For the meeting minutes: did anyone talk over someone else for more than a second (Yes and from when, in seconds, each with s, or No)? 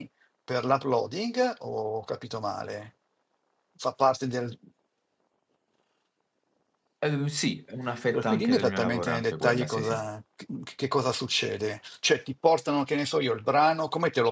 Yes, from 8.1 s